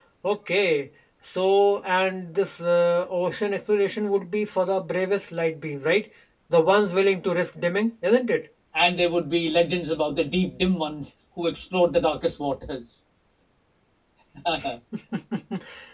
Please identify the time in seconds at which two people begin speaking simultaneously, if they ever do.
none

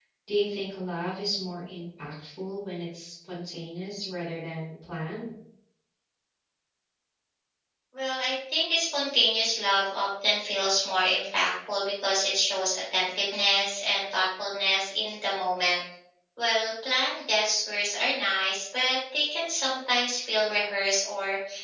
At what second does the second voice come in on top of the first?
none

